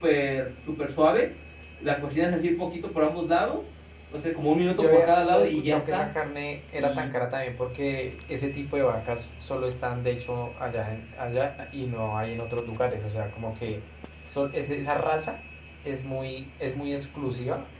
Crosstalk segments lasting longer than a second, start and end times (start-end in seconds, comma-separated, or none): 4.8-6.1